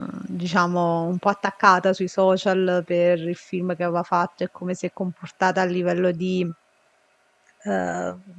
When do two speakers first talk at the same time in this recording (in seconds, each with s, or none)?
none